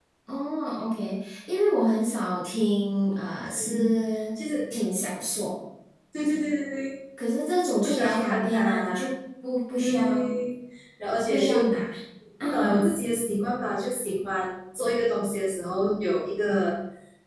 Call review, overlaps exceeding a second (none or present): present